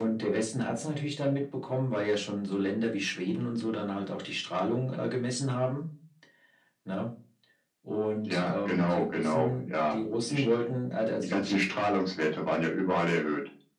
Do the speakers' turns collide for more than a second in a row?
Yes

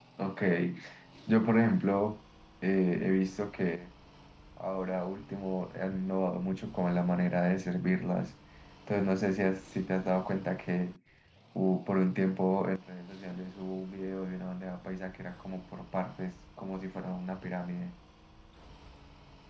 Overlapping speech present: No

